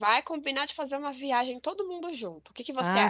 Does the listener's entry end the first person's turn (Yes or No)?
Yes